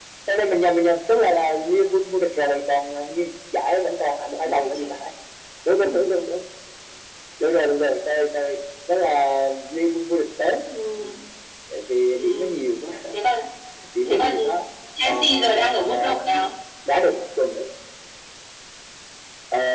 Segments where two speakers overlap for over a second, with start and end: 15.0-16.4

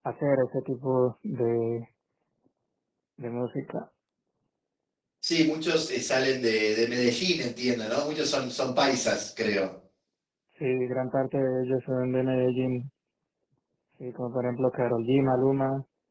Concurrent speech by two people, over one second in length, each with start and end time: none

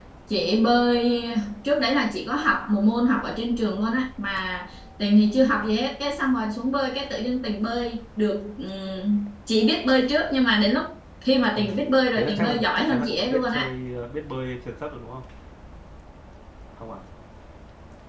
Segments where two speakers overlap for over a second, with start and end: 12.1-13.7

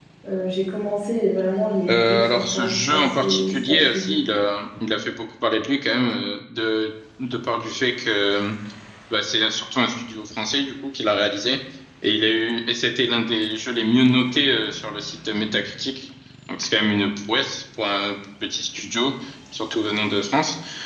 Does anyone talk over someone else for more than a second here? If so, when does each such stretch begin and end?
1.9-4.1

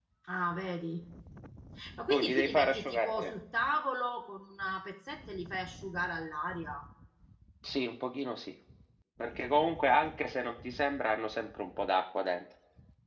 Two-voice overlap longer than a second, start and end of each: 2.1-3.3

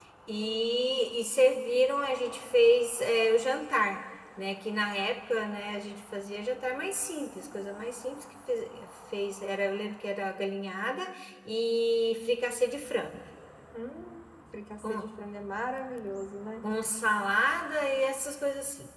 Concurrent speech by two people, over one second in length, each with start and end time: none

